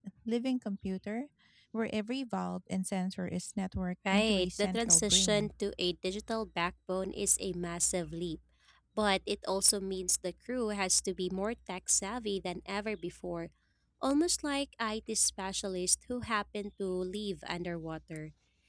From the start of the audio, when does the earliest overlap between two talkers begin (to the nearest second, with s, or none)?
4 s